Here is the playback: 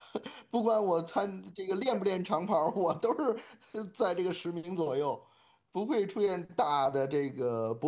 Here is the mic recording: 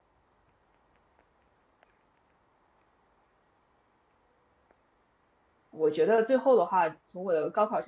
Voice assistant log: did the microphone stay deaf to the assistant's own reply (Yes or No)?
Yes